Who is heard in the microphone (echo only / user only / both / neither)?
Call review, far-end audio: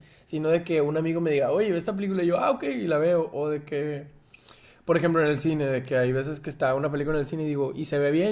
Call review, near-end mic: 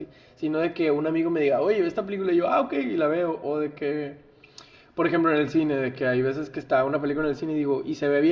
echo only